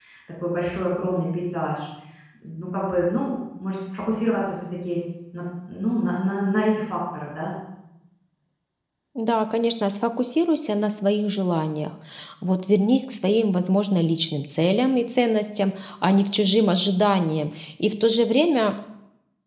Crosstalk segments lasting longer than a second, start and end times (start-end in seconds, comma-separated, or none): none